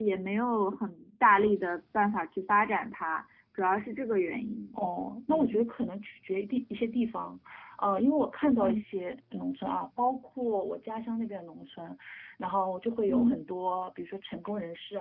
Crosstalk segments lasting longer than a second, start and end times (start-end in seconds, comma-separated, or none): none